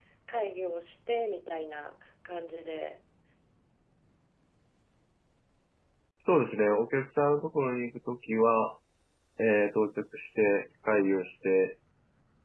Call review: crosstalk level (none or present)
none